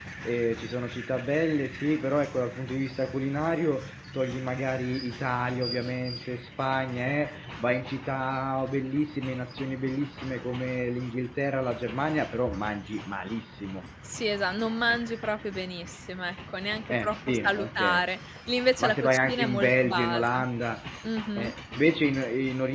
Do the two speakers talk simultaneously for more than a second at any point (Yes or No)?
Yes